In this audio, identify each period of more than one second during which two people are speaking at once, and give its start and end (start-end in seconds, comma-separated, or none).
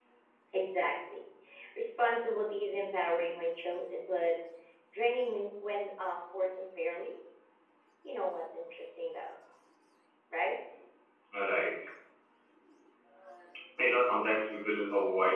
none